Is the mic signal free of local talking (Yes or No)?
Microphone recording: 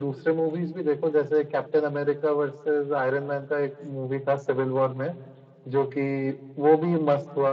Yes